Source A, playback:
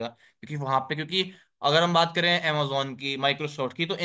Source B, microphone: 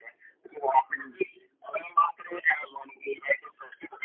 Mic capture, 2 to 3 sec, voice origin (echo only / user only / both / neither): echo only